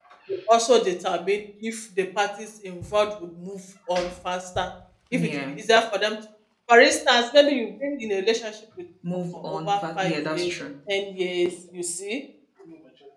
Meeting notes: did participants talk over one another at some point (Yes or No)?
Yes